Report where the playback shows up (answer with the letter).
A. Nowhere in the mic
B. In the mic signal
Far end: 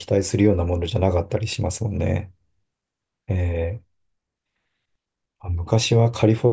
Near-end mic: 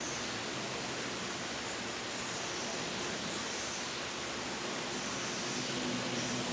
A